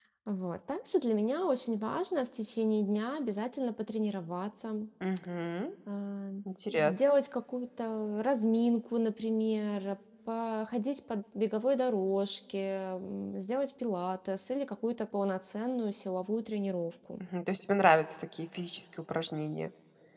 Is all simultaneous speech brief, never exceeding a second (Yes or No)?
Yes